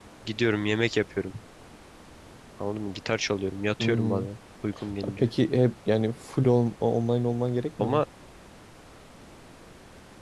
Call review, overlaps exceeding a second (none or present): none